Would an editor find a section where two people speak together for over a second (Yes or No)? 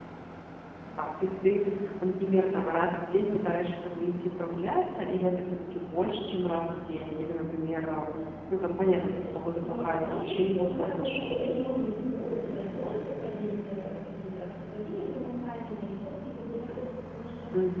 Yes